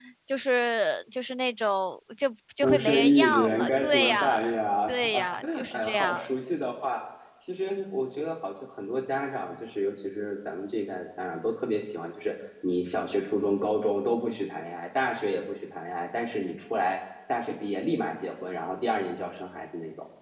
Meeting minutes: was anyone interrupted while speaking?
Yes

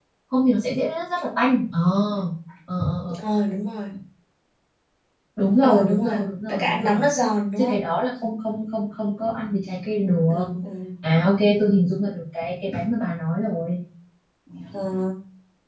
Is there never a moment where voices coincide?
No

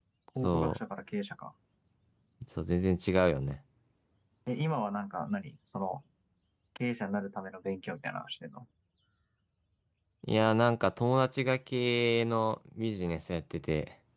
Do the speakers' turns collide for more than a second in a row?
No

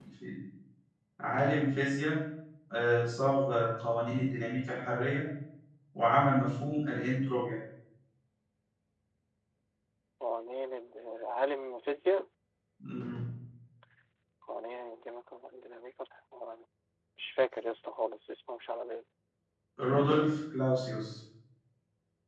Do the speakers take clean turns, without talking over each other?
Yes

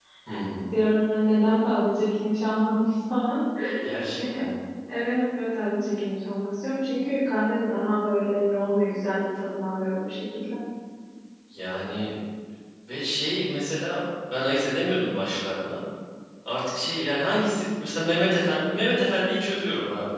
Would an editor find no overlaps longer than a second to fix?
Yes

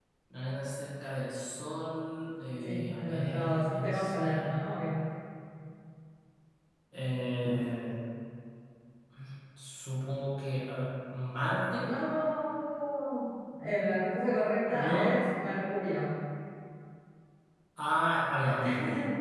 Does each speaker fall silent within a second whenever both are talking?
No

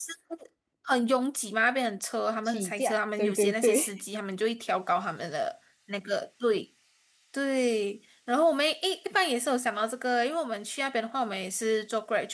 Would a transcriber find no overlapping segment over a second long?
No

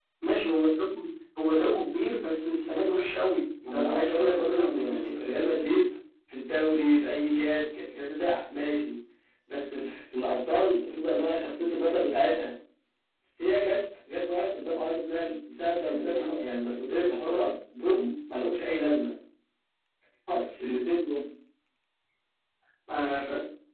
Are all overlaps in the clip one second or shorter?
No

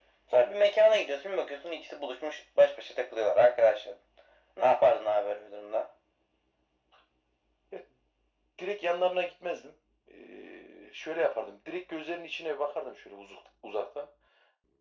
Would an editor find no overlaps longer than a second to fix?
Yes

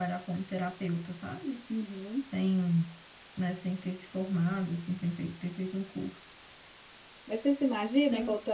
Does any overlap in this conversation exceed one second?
No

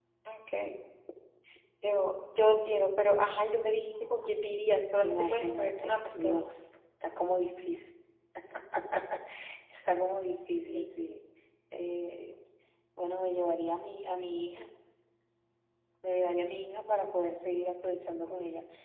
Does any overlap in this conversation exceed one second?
Yes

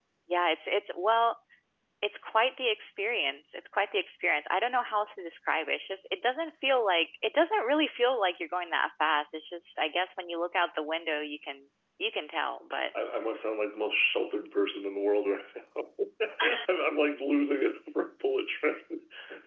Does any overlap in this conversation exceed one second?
No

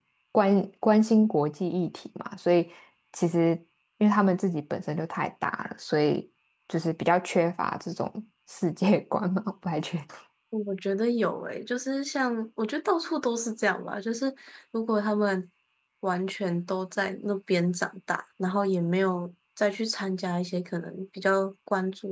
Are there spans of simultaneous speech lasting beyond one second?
No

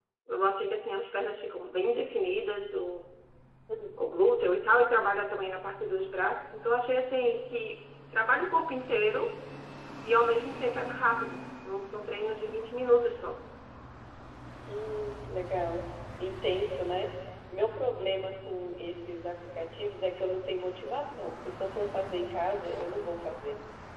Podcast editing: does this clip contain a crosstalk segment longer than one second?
No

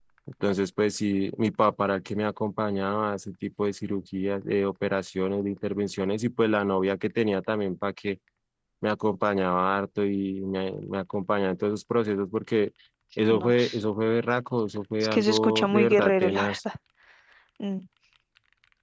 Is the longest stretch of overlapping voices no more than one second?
No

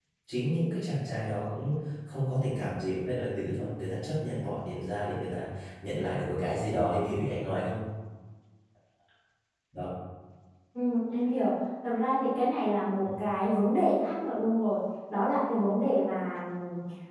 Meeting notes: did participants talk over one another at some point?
No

